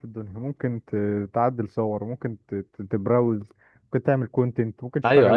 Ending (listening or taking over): taking over